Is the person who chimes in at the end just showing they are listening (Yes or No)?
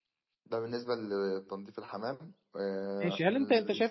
No